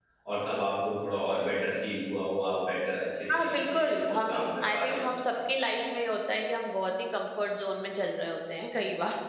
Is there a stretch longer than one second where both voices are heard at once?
Yes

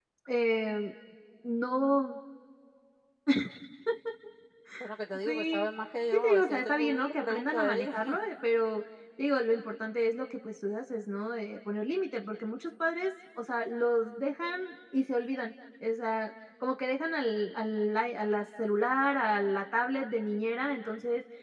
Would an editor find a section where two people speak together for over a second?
Yes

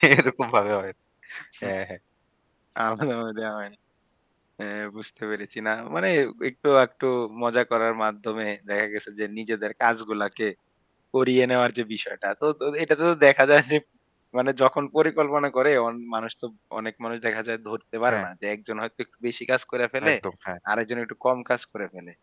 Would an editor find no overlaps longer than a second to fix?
Yes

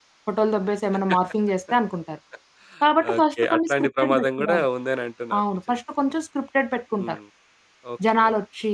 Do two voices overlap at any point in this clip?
Yes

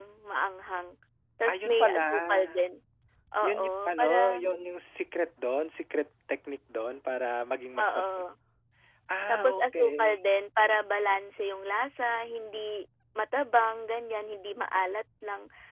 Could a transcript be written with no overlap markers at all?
No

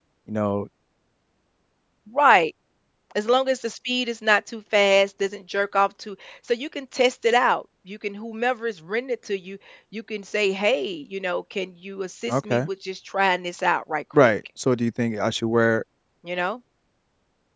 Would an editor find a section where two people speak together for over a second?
No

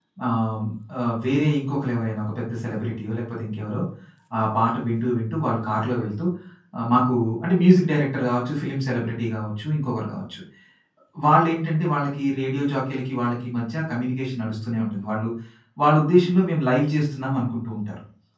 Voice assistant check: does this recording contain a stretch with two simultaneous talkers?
No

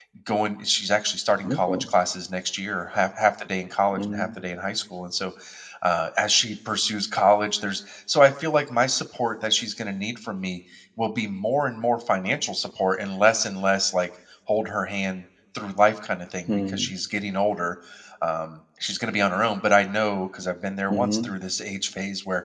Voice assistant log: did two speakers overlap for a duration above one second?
No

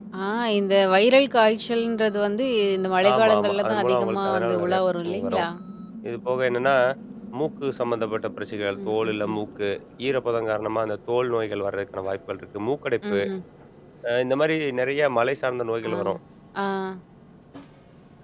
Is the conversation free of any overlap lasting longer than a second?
No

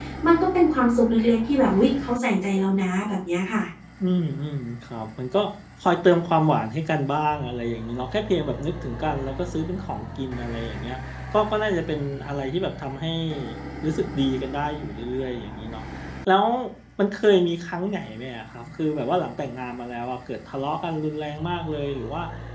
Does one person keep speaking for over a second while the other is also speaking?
No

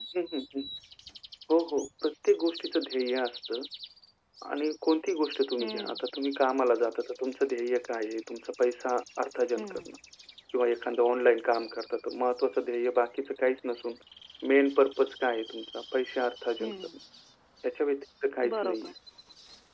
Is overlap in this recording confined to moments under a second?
Yes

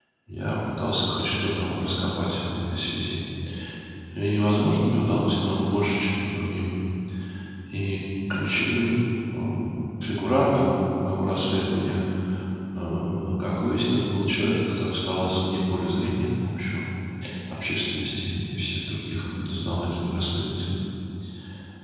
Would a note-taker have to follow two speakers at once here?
No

